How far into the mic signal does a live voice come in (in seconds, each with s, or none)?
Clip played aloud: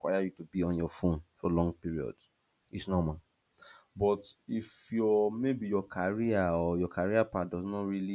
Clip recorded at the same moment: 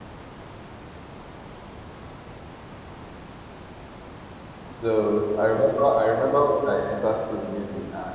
4.8 s